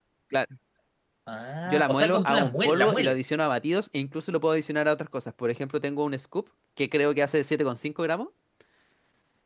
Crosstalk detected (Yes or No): Yes